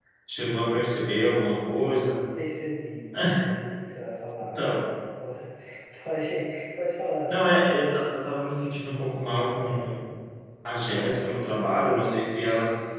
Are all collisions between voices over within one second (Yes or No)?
Yes